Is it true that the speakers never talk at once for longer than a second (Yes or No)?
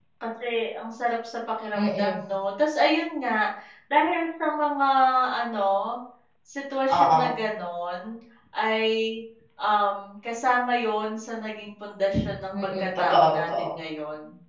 No